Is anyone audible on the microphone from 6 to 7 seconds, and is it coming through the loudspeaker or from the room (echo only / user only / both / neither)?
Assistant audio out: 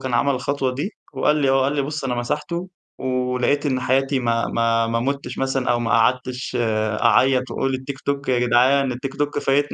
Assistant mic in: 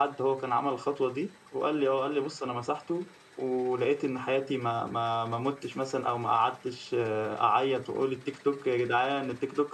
echo only